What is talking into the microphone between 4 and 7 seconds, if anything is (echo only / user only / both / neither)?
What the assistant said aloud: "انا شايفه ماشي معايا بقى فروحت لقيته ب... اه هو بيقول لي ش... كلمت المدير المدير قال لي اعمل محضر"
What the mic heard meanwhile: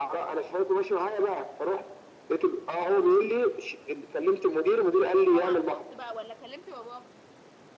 both